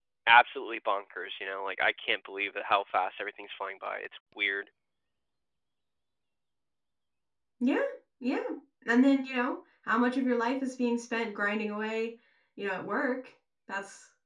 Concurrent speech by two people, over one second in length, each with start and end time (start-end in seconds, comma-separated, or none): none